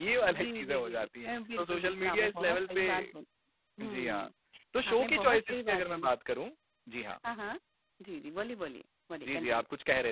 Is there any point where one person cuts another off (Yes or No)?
Yes